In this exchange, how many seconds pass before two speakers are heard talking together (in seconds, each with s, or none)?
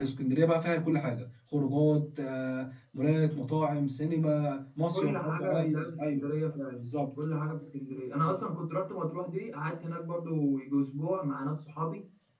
4.9 s